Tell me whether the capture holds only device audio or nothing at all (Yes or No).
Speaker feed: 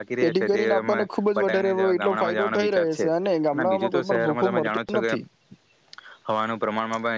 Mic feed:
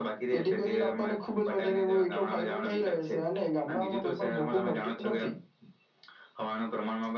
Yes